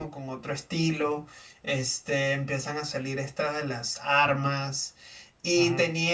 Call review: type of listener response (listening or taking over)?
listening